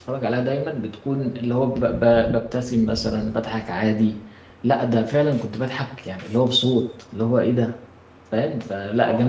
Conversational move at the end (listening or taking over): taking over